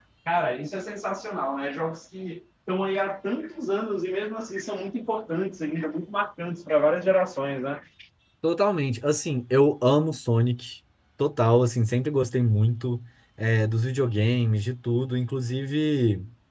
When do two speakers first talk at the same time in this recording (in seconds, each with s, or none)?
none